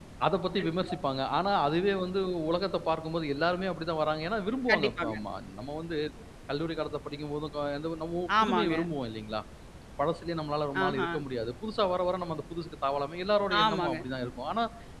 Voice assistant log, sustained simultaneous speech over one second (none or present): none